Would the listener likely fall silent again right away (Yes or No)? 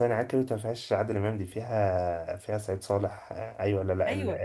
No